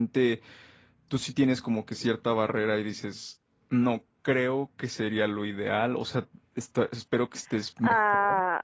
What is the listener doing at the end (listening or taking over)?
taking over